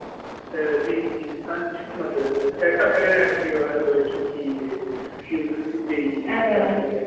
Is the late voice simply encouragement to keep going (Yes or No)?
Yes